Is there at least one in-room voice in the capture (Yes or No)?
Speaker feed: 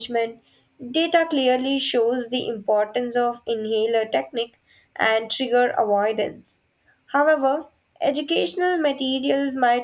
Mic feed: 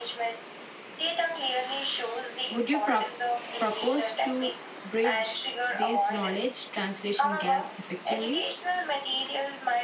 Yes